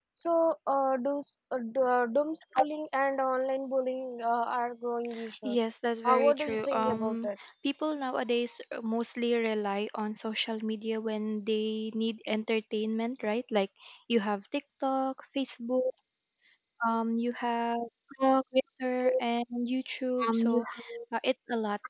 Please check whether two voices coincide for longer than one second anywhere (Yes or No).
Yes